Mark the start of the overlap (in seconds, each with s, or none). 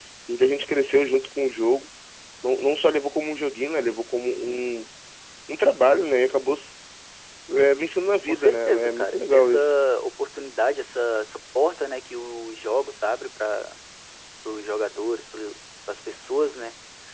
8.3 s